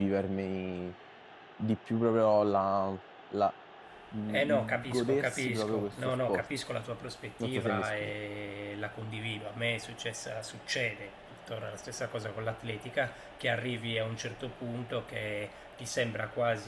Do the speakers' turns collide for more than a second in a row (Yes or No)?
Yes